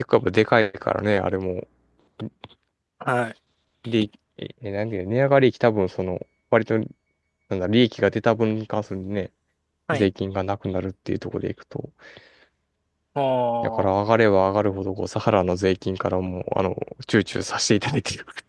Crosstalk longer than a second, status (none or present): none